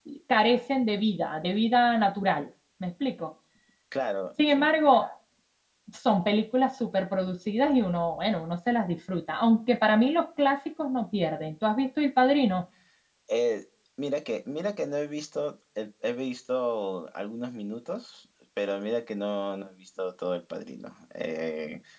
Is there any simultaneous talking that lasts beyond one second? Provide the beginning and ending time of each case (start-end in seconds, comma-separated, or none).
none